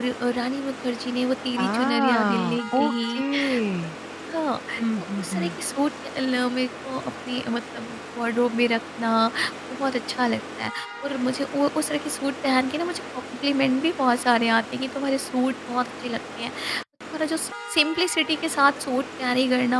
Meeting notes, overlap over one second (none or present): present